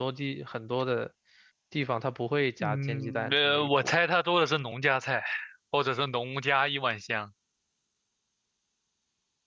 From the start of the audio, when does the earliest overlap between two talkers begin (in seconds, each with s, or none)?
2.6 s